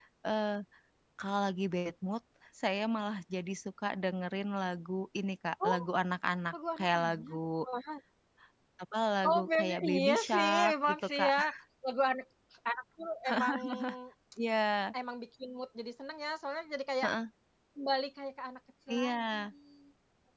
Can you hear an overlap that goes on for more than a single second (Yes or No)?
Yes